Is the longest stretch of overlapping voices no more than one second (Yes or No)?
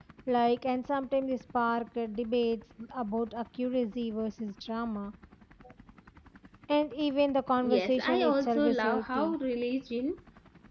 No